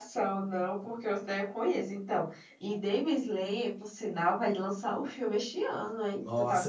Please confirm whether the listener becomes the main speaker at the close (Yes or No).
Yes